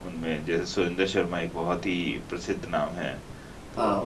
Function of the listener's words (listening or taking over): listening